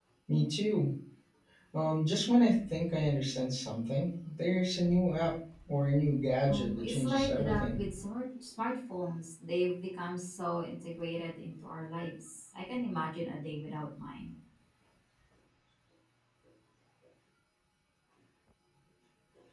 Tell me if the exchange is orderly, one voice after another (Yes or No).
No